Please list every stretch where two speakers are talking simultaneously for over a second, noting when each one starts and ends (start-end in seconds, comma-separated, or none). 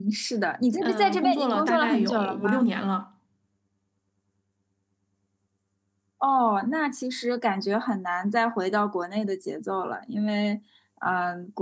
0.8-2.6